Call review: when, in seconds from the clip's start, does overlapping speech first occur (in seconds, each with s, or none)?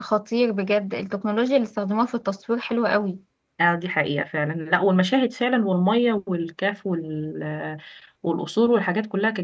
none